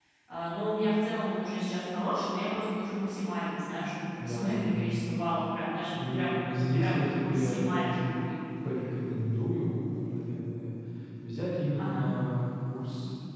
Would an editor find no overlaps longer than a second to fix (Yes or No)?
No